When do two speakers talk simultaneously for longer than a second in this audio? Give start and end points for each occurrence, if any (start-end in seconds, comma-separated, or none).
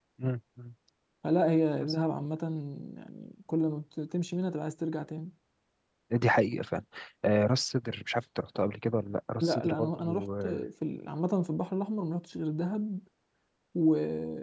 9.4-10.7